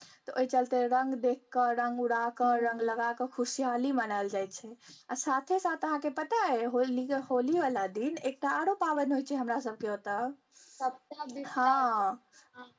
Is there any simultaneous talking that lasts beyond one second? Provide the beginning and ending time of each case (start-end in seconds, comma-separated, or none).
none